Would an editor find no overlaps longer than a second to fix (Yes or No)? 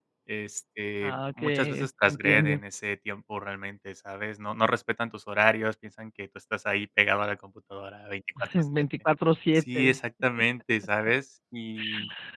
No